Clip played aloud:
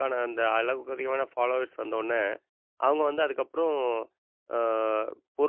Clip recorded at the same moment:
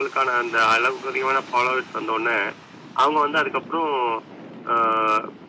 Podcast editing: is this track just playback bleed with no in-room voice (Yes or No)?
Yes